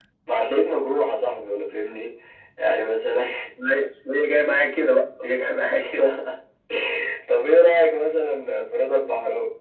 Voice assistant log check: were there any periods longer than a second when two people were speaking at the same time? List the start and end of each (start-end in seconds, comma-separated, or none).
none